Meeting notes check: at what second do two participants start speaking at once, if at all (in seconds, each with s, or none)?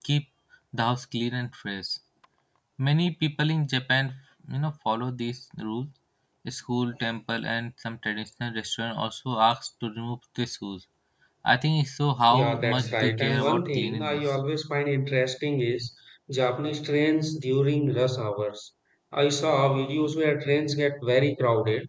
12.3 s